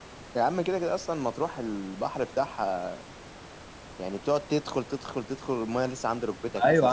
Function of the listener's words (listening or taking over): taking over